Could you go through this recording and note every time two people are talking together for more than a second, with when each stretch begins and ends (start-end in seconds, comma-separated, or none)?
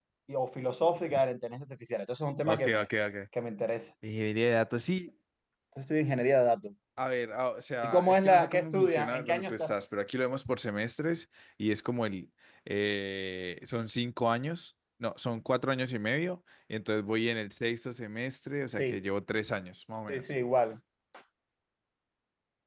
7.8-9.7